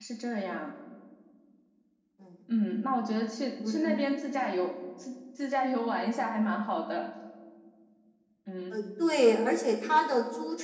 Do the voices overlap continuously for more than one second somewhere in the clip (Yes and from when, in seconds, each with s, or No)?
No